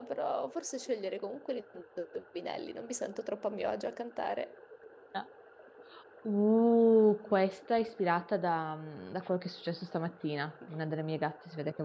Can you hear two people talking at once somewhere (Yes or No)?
No